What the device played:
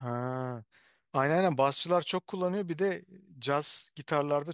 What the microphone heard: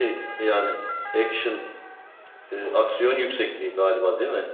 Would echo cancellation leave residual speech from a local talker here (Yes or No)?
Yes